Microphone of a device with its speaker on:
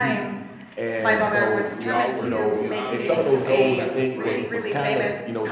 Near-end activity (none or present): present